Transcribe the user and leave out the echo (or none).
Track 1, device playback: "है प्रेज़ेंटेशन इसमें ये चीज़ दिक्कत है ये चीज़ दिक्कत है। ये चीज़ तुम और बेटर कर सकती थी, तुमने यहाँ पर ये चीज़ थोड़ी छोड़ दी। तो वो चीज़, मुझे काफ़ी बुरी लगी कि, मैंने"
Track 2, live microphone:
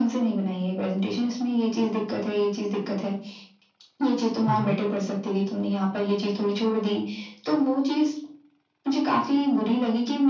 हुँ, हुँ।